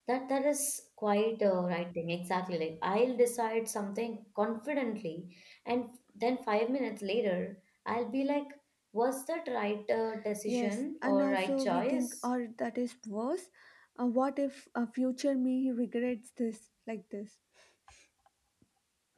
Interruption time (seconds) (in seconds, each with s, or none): 10.5 s